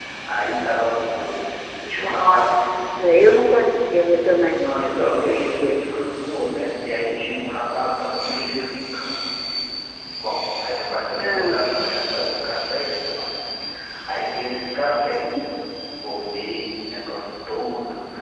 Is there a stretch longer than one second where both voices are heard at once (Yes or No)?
Yes